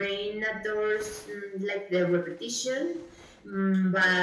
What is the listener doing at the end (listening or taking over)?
listening